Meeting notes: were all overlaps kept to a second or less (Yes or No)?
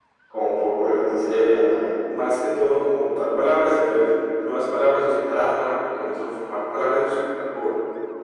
Yes